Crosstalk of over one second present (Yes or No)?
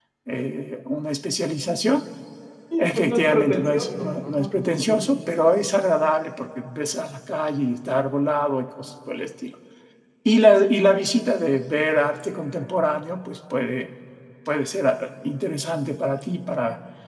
Yes